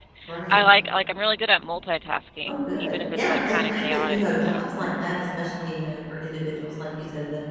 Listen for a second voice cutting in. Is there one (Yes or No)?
Yes